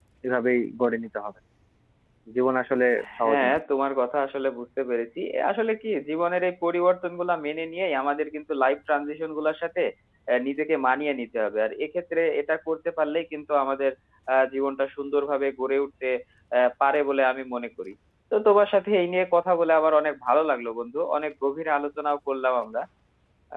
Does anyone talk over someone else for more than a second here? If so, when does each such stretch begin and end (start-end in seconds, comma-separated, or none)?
none